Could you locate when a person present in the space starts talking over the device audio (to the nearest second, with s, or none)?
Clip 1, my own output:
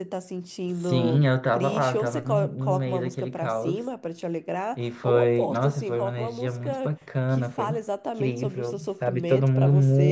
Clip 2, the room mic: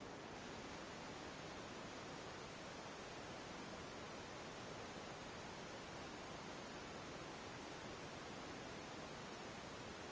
none